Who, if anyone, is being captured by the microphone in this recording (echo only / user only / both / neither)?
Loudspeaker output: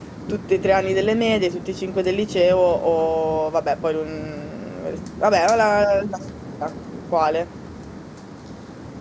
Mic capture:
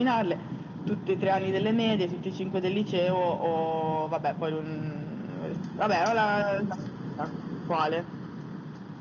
echo only